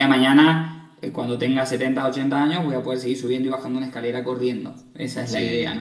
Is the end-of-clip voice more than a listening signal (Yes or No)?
Yes